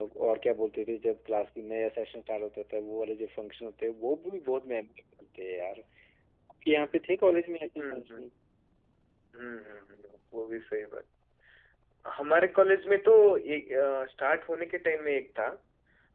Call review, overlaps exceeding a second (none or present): none